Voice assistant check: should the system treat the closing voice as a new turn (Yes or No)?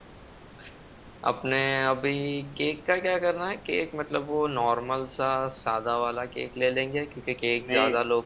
No